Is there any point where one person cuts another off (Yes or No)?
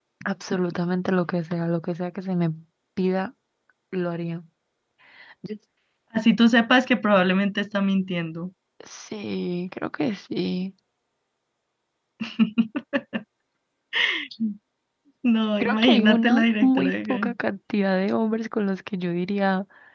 Yes